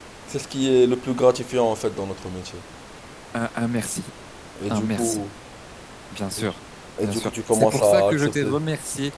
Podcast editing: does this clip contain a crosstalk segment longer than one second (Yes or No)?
Yes